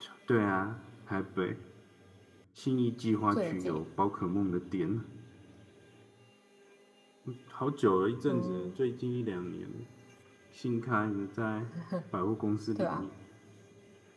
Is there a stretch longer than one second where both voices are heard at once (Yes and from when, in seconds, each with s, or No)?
No